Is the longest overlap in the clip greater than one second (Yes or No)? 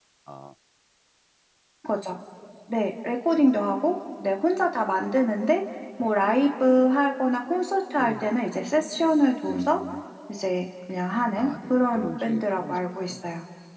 Yes